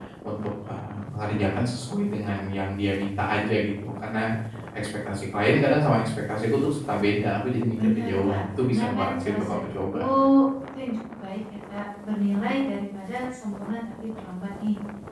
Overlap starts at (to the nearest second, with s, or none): 8 s